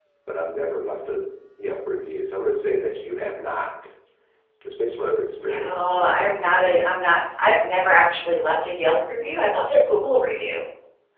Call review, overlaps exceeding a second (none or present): present